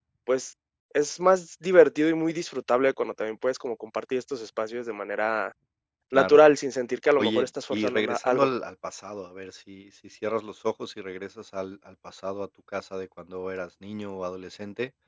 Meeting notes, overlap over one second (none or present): present